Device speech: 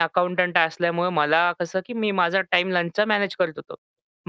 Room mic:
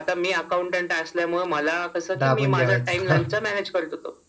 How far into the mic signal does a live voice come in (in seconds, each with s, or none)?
2.2 s